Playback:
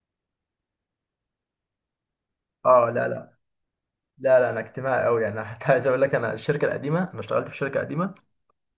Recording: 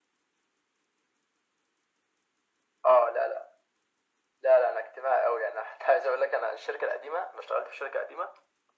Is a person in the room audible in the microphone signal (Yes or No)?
No